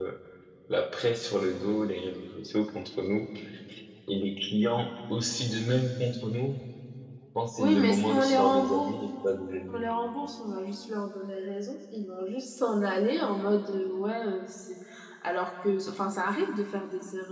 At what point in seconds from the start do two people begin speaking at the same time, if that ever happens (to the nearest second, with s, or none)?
8 s